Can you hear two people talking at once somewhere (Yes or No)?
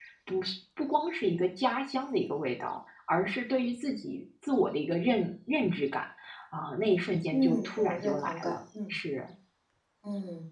Yes